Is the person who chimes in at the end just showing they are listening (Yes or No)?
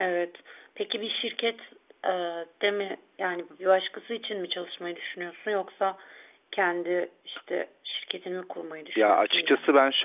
No